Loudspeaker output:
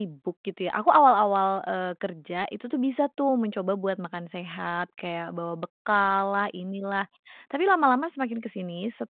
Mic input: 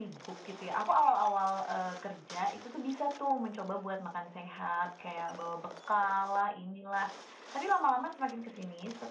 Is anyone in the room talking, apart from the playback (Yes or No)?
No